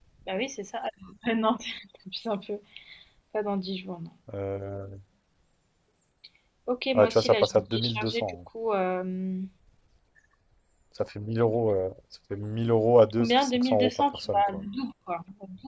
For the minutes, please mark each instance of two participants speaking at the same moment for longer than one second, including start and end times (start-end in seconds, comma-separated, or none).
6.9-8.3, 13.2-14.7